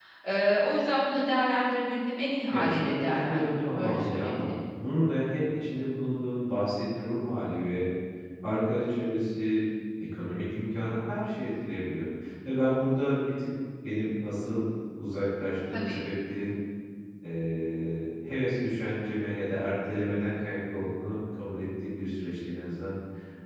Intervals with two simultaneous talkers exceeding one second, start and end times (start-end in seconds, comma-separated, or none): 2.5-4.5